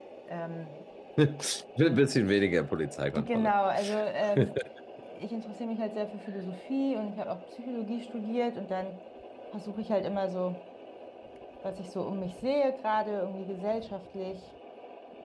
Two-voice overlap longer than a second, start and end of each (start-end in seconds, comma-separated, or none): none